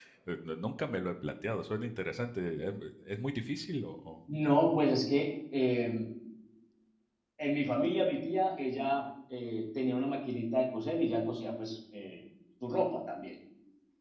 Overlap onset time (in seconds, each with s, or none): none